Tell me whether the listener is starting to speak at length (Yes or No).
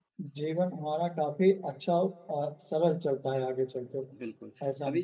Yes